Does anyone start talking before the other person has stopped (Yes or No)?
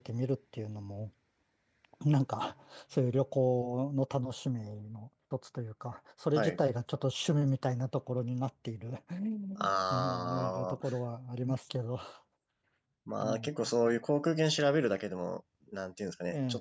Yes